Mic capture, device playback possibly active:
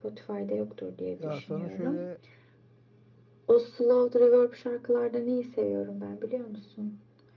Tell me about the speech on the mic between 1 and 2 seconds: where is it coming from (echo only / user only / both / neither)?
both